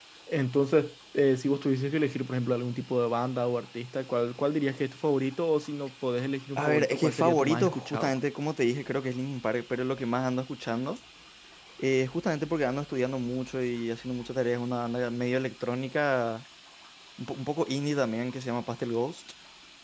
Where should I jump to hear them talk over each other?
6.6 s

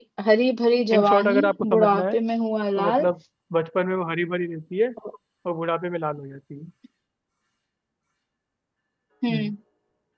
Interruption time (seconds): 0.9 s

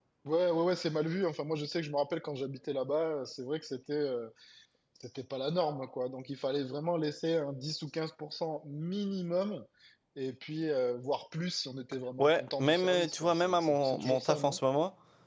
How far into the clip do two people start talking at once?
12.2 s

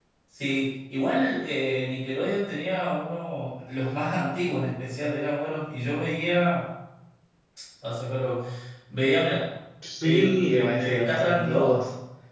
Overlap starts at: 10.0 s

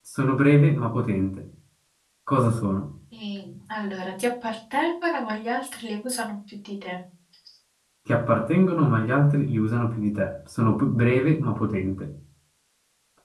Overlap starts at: none

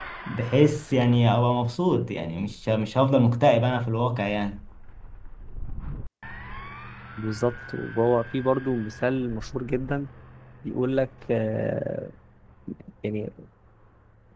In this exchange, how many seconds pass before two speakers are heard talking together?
none

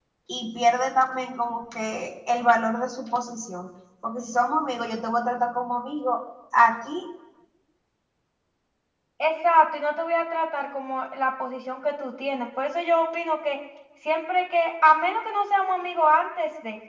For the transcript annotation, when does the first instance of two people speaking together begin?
none

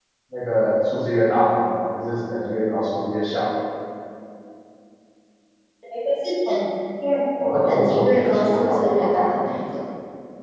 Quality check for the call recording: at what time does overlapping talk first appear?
7.7 s

